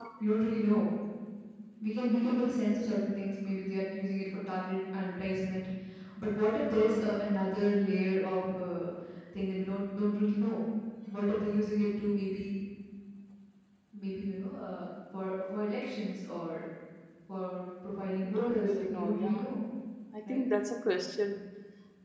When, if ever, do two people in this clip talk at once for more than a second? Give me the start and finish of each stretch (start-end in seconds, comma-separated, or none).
18.2-19.5